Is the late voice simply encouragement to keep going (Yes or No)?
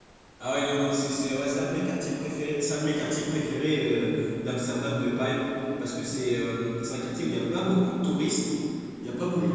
Yes